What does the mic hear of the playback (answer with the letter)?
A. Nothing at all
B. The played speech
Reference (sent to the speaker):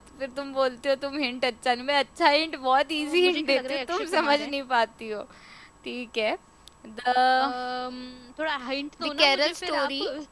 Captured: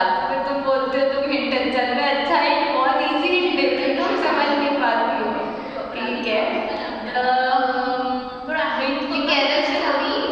B